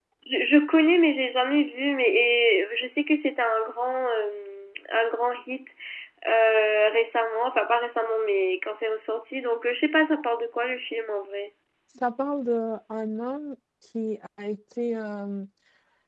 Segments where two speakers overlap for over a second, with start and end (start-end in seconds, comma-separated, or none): none